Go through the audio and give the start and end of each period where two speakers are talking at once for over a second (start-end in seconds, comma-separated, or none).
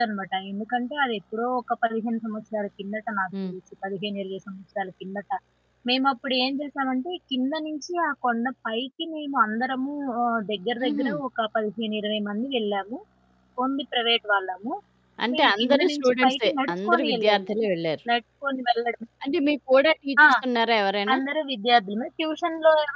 15.3-17.5